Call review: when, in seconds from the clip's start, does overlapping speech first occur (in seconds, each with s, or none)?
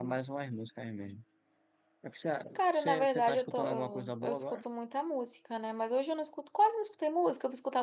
2.7 s